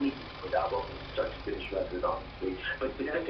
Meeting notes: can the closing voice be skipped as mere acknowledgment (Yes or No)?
Yes